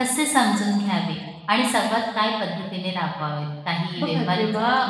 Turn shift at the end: Yes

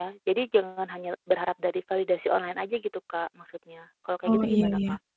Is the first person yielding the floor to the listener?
Yes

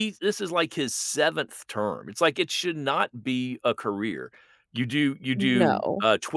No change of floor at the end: Yes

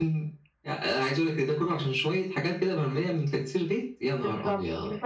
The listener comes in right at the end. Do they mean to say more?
Yes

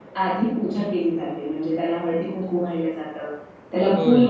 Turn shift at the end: No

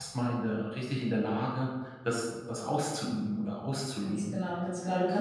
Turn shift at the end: Yes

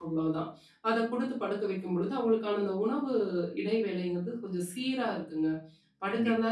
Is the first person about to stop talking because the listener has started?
No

